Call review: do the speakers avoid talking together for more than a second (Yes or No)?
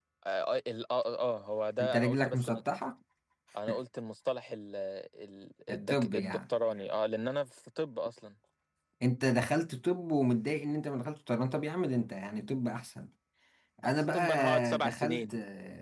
No